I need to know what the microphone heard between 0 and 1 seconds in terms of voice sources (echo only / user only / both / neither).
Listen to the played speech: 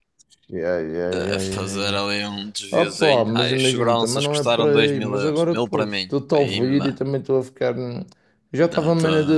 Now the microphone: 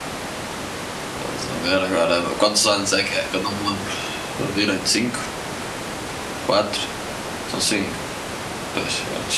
neither